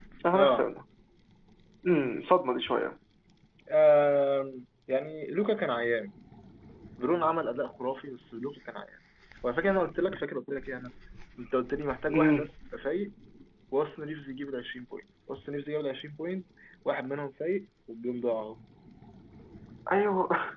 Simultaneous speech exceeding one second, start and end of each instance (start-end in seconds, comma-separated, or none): none